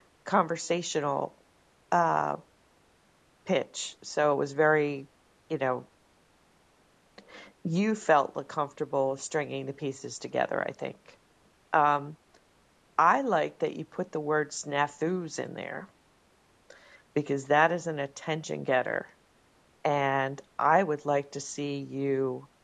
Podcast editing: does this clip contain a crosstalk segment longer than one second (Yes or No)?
No